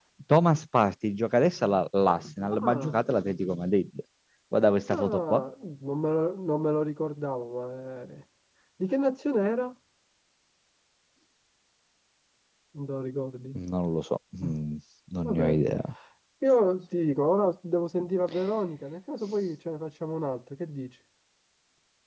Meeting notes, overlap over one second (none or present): none